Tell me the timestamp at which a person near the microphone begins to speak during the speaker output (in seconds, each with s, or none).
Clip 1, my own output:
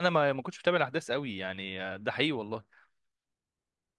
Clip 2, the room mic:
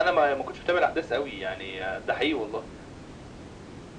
none